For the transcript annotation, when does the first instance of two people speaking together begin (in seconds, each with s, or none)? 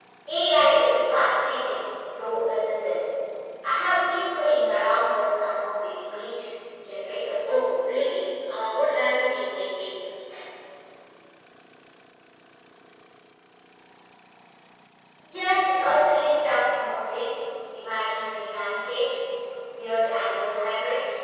none